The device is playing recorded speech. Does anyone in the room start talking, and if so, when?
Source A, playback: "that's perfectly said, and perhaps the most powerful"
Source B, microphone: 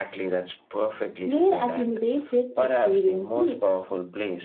1.2 s

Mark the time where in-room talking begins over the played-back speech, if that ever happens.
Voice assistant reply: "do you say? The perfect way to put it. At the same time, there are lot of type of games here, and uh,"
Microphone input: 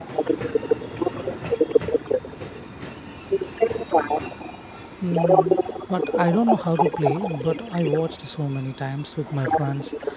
5.0 s

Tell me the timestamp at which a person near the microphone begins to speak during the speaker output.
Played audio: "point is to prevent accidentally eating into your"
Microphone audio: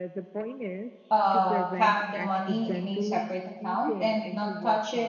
1.1 s

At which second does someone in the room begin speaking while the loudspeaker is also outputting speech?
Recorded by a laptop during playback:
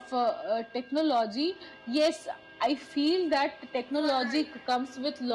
3.9 s

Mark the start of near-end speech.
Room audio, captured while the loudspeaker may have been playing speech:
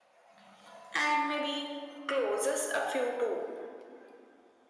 none

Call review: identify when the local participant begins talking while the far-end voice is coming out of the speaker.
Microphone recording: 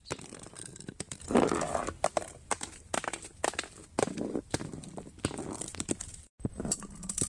none

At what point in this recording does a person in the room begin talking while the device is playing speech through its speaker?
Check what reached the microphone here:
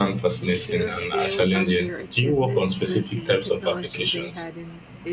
0.3 s

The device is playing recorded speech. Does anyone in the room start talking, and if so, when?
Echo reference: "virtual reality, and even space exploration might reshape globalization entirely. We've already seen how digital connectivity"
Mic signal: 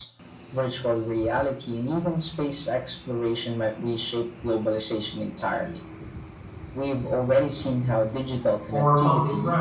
8.7 s

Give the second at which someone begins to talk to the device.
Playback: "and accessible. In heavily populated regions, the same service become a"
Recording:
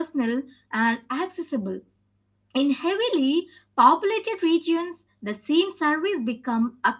none

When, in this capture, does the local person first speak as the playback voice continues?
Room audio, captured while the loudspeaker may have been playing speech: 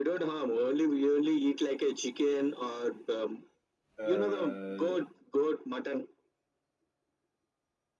4.0 s

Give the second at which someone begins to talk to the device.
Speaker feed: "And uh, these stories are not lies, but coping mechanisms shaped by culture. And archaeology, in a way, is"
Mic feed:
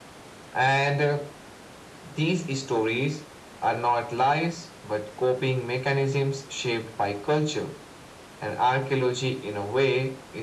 none

